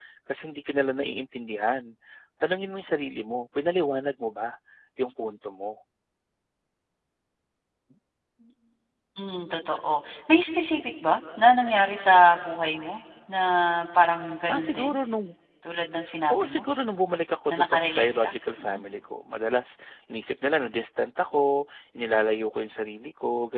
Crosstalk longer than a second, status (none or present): present